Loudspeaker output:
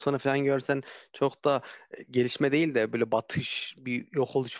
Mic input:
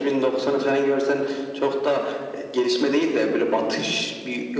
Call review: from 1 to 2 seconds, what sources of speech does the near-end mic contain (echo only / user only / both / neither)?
echo only